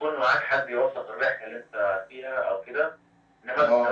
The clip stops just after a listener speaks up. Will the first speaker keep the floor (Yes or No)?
Yes